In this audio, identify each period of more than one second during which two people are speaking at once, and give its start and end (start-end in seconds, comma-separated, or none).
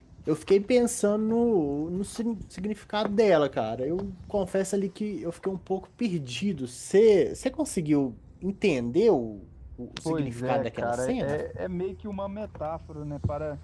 10.1-11.4